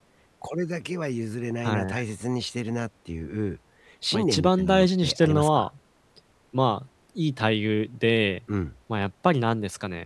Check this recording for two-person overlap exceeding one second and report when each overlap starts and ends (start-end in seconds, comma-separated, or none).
4.1-5.7